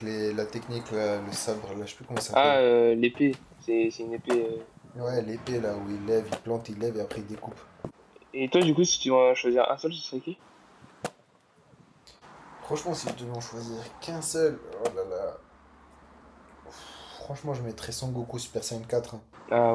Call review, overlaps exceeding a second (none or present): none